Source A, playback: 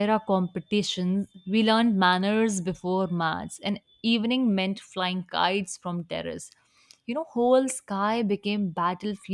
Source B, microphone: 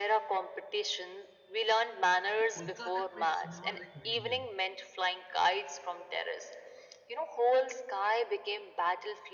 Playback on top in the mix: Yes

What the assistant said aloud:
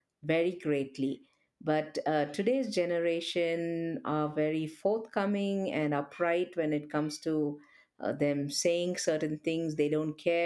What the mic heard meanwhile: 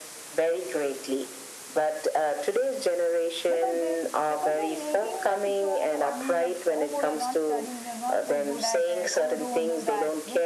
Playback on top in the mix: Yes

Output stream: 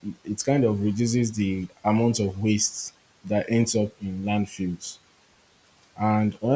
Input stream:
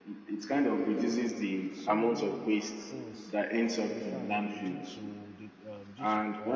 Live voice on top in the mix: No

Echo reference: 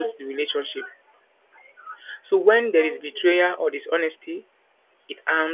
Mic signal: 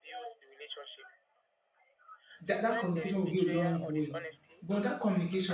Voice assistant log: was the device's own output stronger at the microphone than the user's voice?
No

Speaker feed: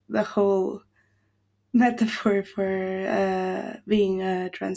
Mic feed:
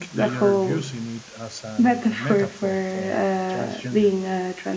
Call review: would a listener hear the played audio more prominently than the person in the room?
Yes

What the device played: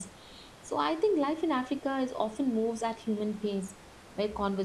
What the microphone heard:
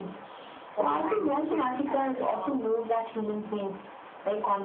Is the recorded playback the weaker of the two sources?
No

